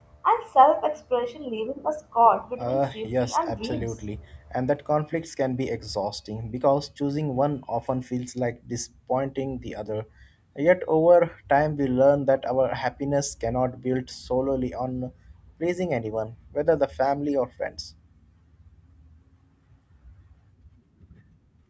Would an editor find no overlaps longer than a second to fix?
No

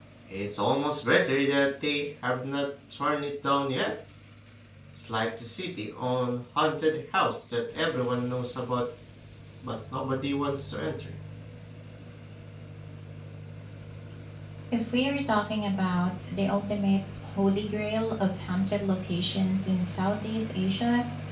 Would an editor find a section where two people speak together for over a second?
No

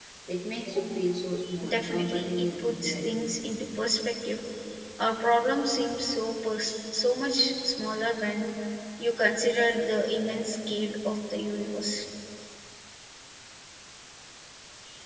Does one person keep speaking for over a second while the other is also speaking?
Yes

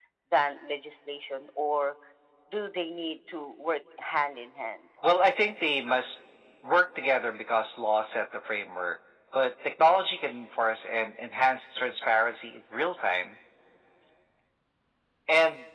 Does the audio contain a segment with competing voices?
No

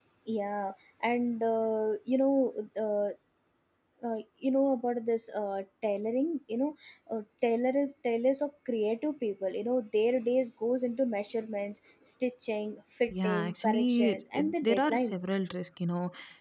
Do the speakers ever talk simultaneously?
Yes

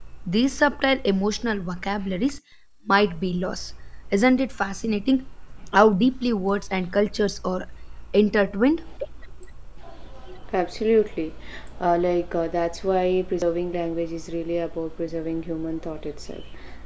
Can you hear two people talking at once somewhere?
No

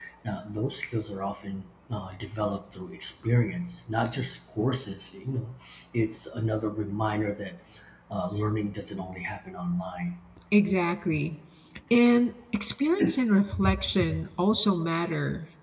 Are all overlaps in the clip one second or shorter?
Yes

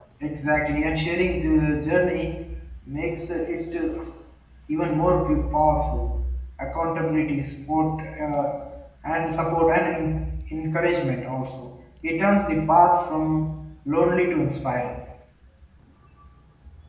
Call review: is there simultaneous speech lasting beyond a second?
No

